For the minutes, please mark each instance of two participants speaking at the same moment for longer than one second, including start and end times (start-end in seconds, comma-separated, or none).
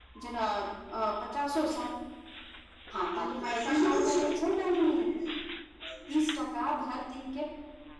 3.0-4.2